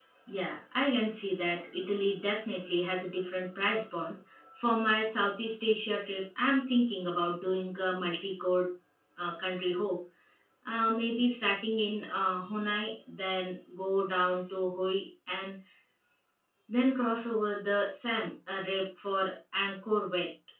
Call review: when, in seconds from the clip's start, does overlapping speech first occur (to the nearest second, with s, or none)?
none